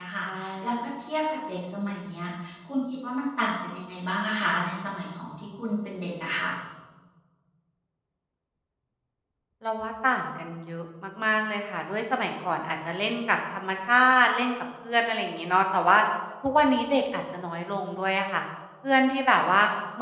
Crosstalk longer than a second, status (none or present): none